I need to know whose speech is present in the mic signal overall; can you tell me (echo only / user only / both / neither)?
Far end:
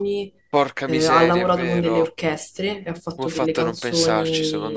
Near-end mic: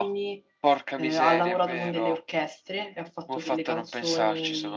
echo only